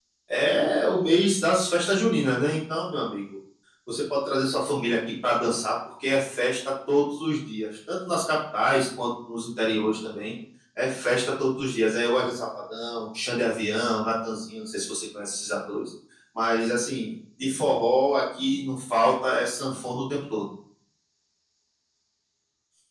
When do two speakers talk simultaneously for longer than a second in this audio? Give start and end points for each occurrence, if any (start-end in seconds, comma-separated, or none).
none